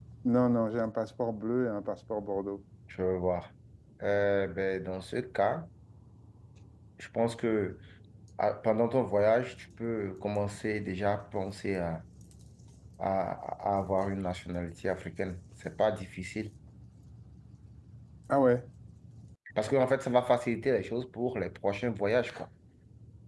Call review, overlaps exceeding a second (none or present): none